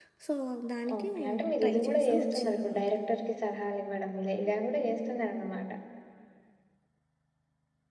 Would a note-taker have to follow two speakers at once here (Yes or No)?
Yes